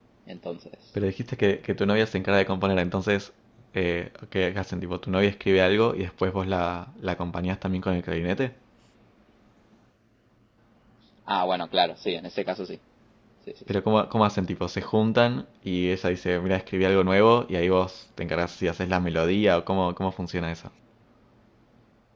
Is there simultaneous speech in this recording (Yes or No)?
No